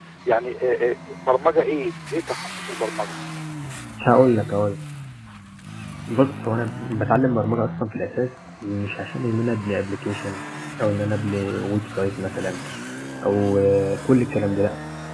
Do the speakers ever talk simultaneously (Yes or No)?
No